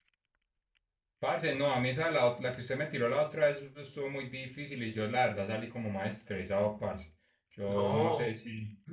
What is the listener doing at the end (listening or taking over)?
taking over